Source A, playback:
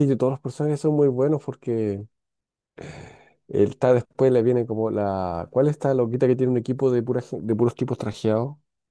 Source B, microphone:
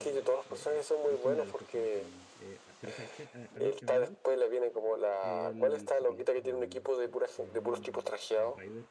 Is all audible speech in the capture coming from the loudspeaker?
No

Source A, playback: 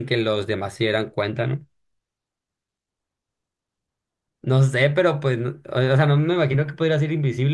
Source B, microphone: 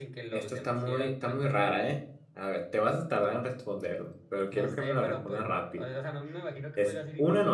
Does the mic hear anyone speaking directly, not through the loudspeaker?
Yes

